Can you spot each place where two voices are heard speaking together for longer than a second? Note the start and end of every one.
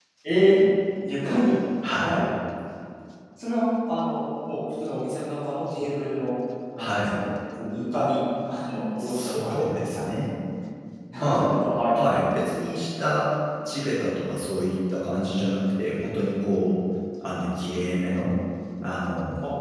9.0-10.3

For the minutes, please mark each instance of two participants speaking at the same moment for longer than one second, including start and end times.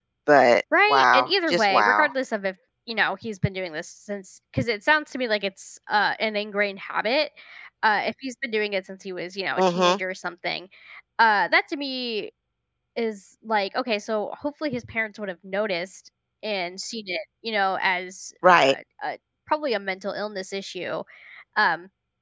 0.9-2.1

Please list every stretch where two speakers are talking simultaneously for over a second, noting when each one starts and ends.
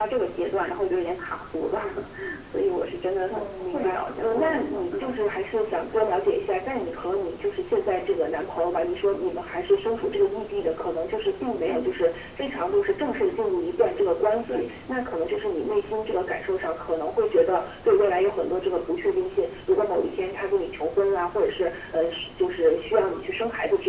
3.3-5.2

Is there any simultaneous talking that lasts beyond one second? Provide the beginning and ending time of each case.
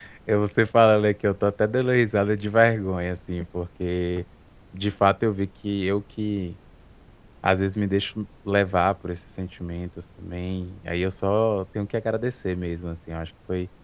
none

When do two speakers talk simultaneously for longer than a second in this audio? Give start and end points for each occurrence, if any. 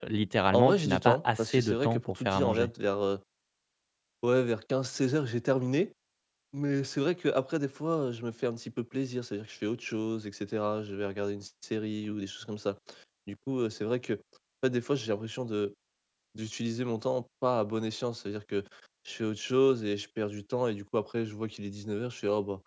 0.5-2.7

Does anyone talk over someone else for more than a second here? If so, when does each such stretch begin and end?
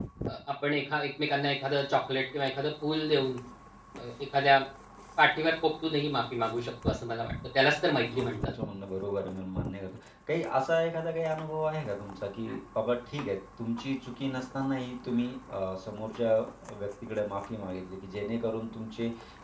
none

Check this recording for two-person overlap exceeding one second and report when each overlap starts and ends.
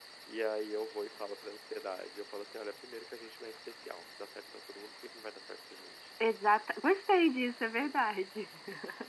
none

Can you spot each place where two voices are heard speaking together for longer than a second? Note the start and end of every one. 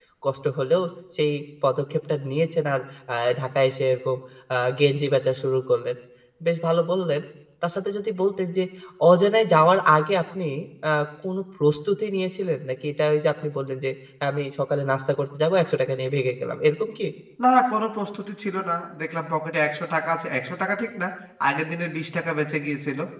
none

